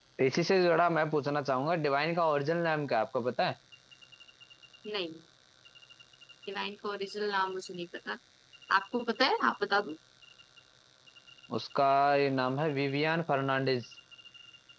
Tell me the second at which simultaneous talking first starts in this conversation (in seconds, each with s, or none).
none